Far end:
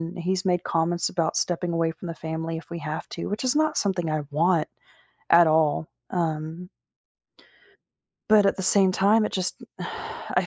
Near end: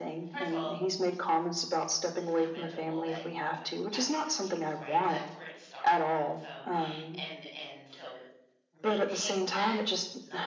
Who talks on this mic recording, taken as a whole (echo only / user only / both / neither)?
both